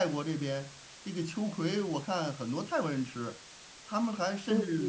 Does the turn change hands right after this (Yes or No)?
No